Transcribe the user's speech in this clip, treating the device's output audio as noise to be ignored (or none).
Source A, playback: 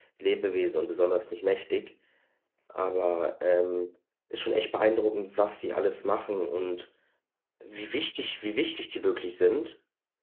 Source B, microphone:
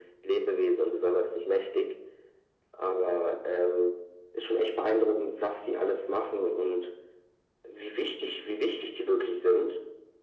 none